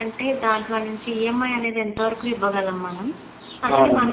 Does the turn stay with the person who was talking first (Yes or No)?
Yes